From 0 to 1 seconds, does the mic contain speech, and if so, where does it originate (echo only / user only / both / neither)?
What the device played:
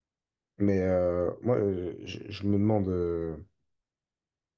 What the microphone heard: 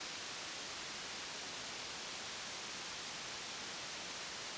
neither